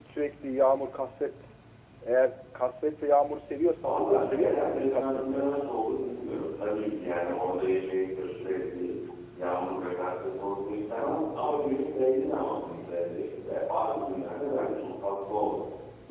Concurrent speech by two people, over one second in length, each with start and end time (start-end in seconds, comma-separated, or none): 3.8-5.6